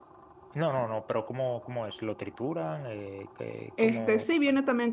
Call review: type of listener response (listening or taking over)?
taking over